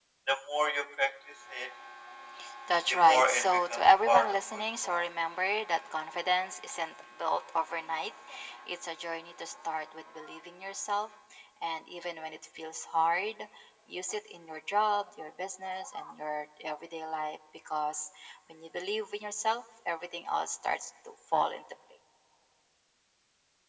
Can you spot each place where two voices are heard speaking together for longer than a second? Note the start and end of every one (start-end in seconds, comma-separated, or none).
2.9-5.0